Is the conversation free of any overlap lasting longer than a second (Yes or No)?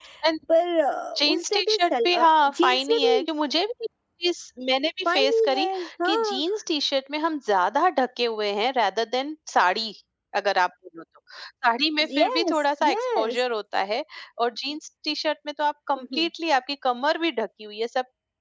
No